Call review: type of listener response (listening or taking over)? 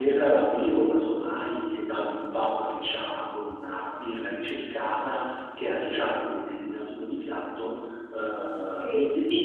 listening